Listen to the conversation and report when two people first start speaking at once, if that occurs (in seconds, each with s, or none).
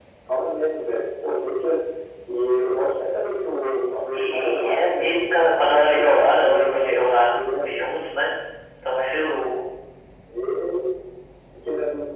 4.1 s